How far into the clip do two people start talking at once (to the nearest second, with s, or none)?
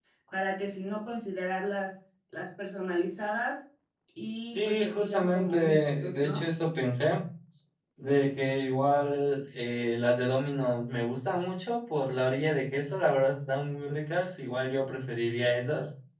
5 s